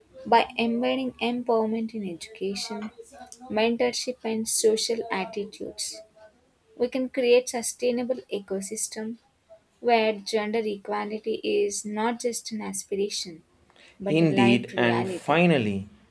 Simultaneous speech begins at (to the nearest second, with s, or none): 14 s